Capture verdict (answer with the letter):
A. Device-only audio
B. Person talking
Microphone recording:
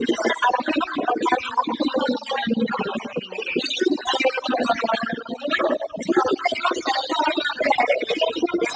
A